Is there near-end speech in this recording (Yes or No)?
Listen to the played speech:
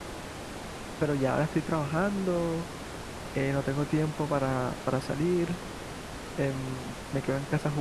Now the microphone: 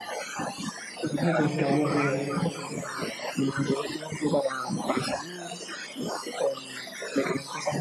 Yes